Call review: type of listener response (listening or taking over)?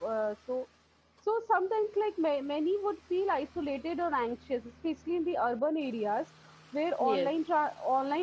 listening